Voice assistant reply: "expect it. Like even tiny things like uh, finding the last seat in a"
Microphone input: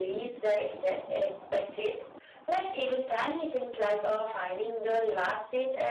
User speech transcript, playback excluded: none

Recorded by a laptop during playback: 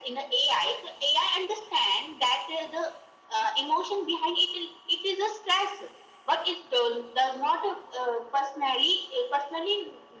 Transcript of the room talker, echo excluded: none

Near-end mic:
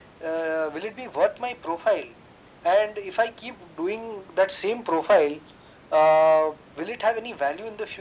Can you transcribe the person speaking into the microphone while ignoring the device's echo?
none

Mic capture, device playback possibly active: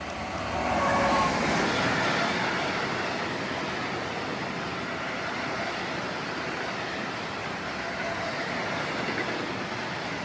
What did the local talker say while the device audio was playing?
none

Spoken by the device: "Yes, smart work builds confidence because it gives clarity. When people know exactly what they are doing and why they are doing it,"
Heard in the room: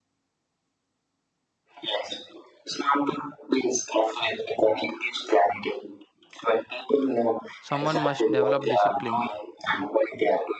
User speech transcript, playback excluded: Someone must develop discipline,

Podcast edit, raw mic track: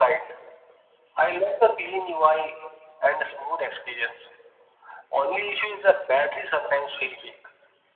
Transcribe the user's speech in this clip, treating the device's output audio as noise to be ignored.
none

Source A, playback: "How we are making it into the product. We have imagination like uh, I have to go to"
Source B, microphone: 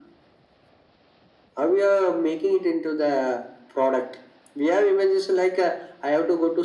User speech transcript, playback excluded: none

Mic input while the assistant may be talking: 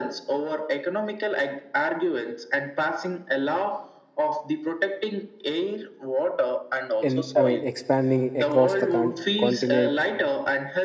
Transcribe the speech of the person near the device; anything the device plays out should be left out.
in I mean expanding across the con- continent

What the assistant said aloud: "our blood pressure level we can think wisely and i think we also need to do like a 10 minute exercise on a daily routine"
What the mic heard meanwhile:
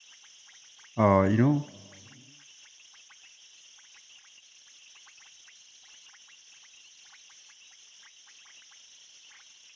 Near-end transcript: uh, you know

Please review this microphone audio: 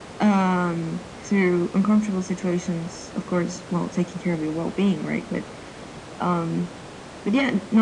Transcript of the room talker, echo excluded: none

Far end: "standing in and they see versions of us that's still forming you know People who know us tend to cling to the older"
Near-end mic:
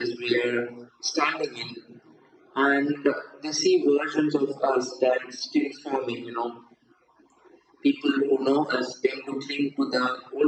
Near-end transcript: none

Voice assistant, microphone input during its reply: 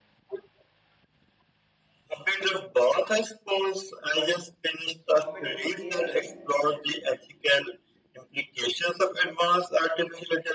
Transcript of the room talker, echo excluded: competing AI?

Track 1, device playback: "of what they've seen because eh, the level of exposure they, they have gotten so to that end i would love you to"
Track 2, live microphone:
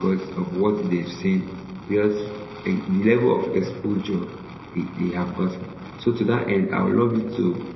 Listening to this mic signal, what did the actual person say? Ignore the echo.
none

